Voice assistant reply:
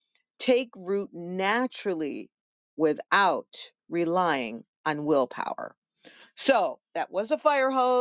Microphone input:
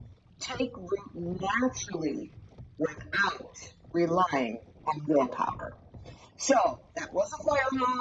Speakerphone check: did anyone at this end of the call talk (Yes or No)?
No